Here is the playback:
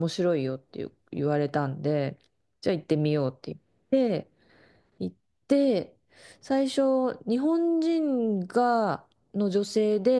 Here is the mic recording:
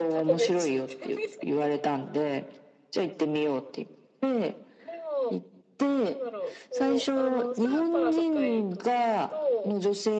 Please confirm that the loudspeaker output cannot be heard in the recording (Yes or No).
No